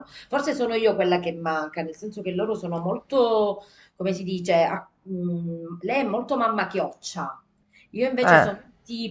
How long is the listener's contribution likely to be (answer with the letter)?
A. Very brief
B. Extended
A